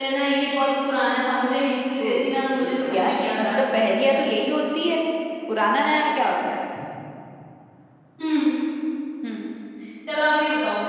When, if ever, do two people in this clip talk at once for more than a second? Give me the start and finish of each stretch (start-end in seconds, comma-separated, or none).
2.0-3.5